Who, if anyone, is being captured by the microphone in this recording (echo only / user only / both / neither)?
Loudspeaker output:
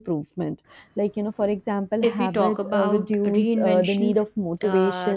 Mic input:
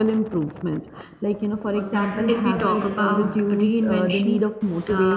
both